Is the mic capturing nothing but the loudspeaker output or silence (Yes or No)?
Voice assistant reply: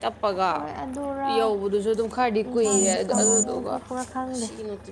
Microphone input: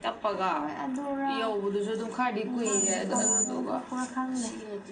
Yes